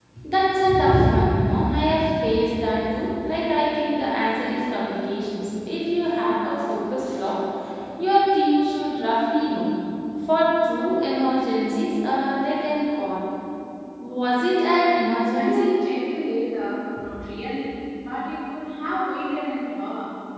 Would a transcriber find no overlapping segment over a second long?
Yes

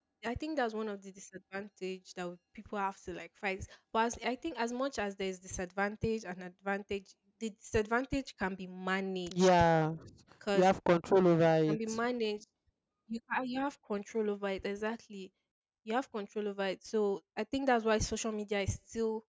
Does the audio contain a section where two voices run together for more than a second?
No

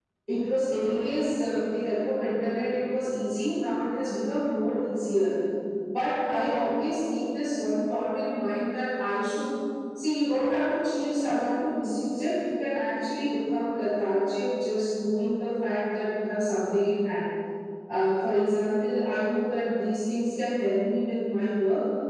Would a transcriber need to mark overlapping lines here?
No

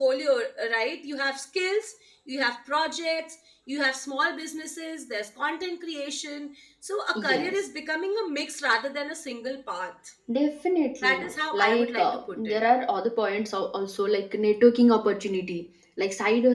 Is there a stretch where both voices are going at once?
Yes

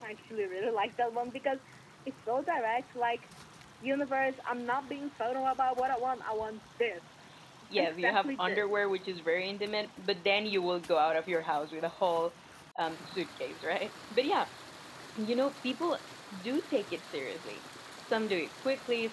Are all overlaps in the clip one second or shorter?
No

